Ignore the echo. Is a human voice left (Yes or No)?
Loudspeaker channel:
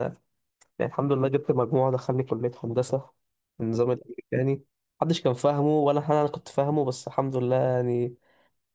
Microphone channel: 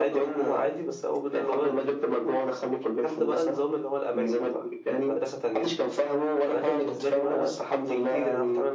Yes